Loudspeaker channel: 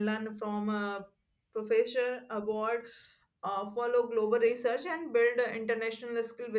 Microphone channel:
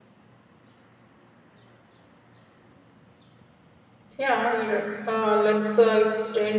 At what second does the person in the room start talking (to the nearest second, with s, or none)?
4 s